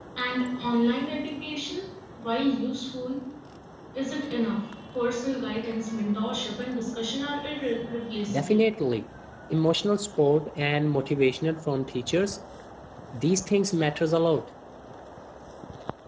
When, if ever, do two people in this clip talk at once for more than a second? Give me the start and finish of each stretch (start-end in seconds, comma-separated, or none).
none